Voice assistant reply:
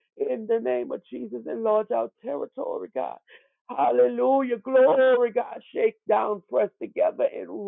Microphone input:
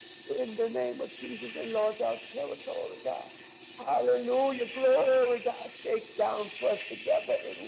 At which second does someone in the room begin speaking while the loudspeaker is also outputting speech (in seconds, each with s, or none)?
none